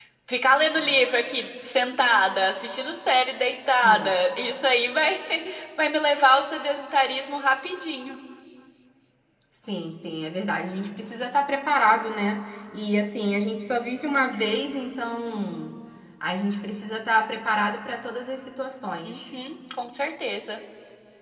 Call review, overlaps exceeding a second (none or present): none